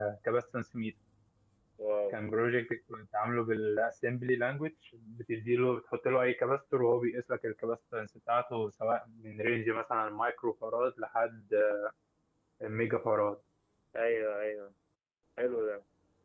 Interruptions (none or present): none